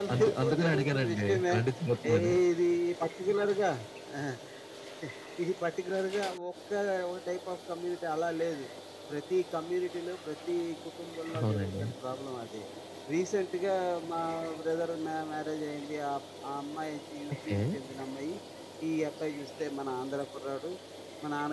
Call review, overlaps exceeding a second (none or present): present